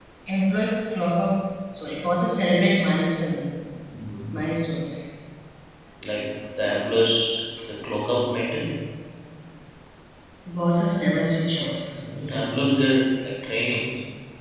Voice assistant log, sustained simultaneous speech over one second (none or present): none